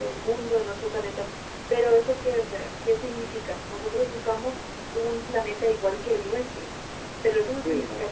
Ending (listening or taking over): listening